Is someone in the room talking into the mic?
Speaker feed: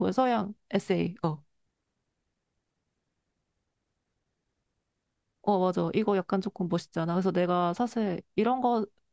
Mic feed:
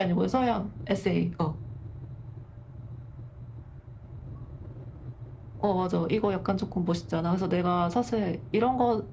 No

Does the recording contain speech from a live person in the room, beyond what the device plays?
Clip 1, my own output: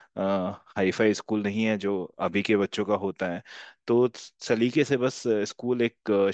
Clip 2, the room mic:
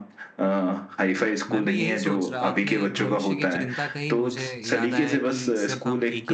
Yes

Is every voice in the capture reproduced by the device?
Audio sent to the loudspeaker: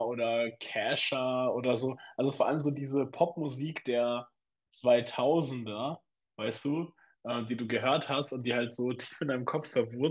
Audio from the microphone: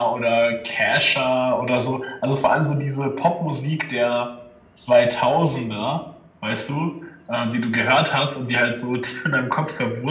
Yes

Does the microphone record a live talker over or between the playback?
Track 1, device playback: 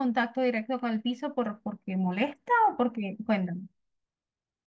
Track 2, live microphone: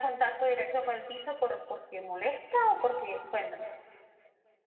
No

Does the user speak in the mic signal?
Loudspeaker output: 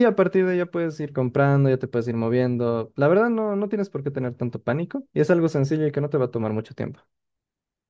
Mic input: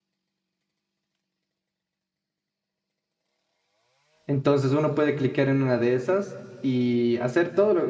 Yes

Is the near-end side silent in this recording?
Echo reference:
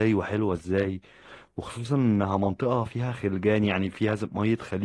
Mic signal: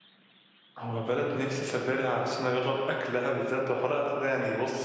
No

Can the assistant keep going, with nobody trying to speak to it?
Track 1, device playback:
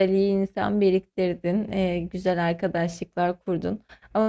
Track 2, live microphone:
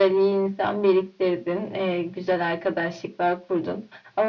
Yes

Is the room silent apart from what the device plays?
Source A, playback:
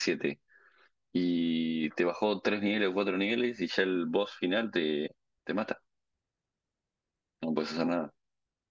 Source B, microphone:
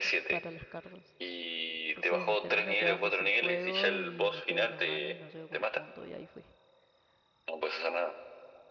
No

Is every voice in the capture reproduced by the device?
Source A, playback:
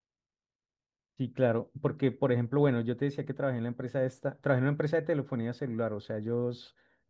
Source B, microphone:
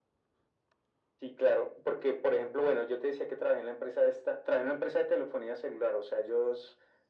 Yes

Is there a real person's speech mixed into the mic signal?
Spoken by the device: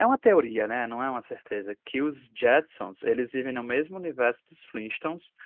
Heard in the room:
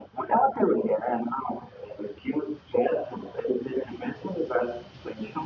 No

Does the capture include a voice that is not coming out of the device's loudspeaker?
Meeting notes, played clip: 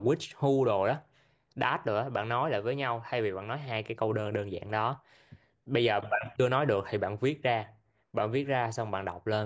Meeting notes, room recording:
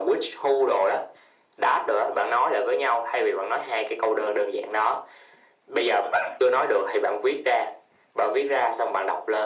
No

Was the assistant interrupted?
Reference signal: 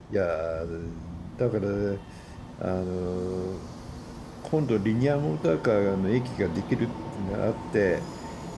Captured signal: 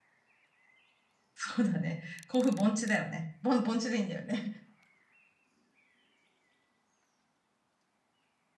Yes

